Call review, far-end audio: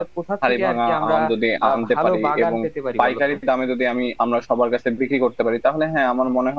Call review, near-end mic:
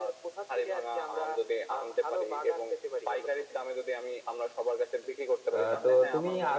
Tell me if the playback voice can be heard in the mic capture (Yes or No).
Yes